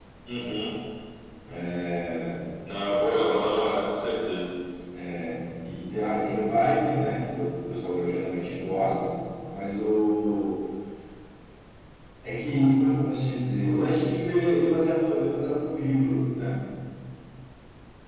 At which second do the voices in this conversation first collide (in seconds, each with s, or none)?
none